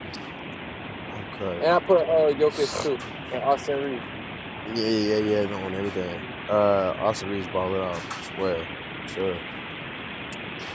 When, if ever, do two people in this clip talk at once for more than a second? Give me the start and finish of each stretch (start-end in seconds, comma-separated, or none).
none